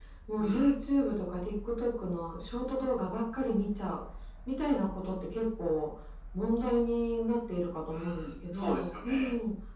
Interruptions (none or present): present